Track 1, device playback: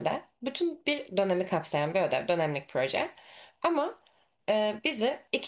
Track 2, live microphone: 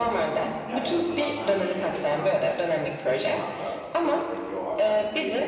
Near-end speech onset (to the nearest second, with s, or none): 1 s